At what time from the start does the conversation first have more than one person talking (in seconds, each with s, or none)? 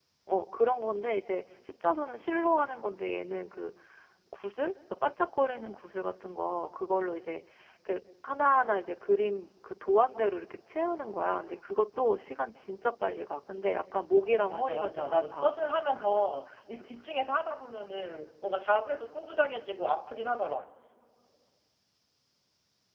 14.1 s